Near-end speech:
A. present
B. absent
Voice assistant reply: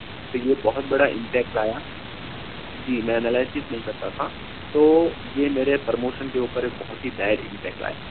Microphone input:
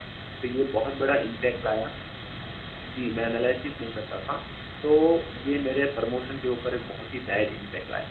B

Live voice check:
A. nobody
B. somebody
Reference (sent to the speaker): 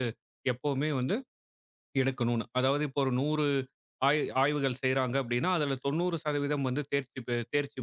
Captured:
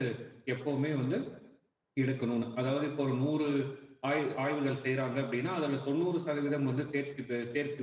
A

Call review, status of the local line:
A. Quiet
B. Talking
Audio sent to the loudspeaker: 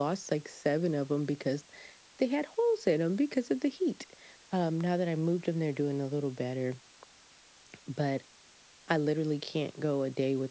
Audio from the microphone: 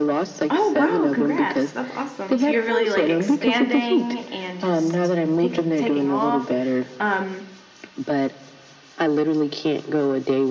B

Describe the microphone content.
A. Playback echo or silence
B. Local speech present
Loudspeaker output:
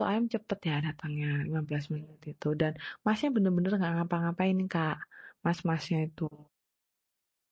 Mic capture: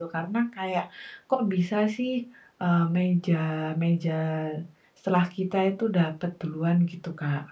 B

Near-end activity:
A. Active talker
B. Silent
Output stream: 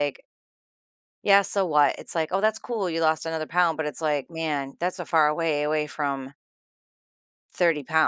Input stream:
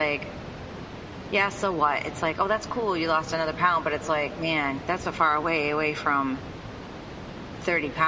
B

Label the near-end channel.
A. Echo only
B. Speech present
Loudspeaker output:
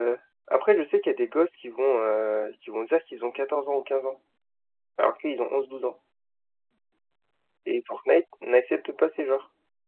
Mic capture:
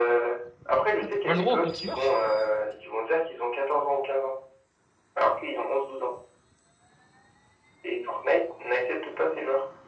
B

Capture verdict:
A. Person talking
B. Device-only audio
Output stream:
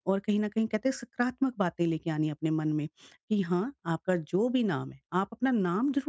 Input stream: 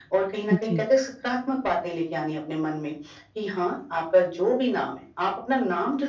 A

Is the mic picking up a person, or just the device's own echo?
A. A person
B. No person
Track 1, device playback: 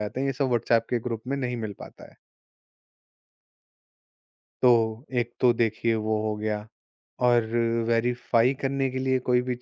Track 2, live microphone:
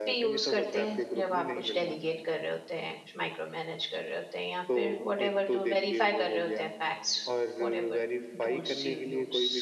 A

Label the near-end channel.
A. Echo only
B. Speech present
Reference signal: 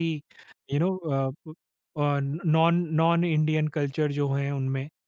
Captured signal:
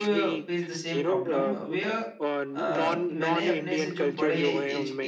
B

